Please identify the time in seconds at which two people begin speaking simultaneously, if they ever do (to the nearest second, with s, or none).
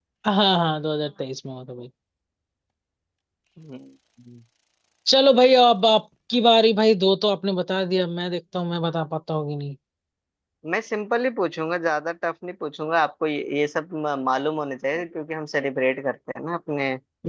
none